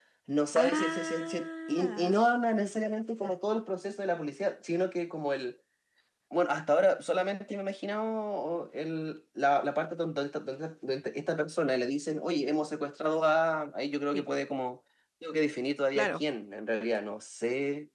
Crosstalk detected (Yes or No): Yes